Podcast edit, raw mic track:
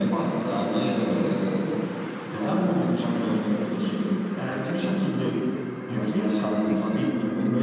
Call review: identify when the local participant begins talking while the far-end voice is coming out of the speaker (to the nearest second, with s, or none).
5 s